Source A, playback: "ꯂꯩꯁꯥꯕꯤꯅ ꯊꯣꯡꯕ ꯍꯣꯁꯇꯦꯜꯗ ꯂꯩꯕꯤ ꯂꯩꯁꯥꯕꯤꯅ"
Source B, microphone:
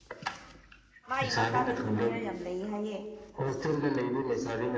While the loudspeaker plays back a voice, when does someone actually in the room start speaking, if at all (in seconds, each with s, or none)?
1.1 s